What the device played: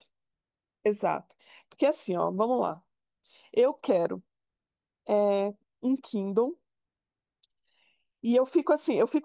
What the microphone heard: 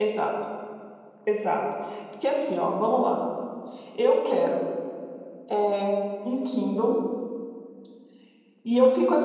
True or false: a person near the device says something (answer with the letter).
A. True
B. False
B